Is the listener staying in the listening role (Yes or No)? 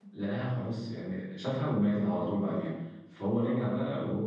Yes